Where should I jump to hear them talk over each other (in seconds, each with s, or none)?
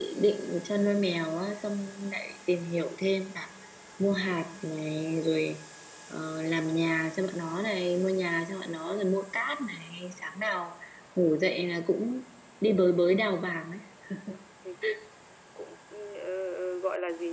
none